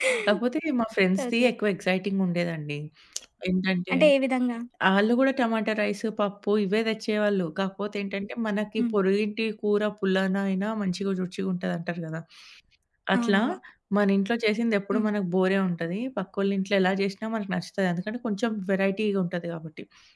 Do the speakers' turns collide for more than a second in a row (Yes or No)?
No